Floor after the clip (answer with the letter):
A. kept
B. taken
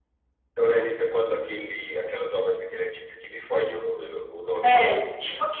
B